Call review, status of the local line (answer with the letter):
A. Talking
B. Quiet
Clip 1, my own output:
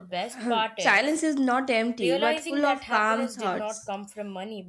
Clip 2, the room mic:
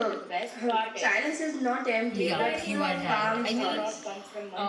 A